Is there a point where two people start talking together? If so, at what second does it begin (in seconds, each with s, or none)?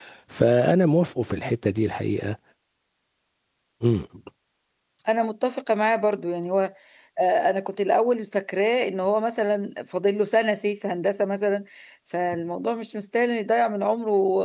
none